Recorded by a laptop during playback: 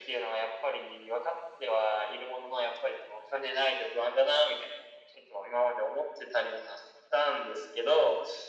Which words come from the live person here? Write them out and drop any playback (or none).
none